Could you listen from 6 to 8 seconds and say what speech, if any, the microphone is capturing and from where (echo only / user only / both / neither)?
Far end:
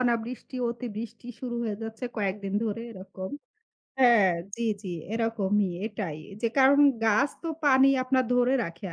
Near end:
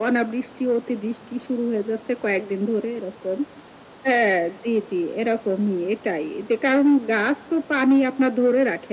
echo only